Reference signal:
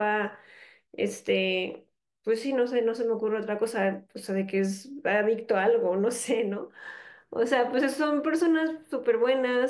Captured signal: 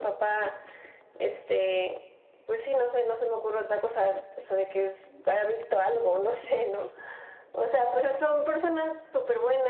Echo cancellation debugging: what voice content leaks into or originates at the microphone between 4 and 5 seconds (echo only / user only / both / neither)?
echo only